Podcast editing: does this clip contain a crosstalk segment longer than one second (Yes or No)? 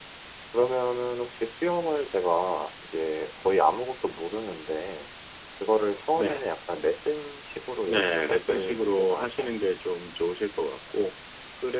Yes